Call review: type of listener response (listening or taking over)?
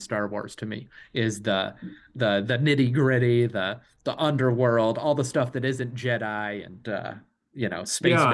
taking over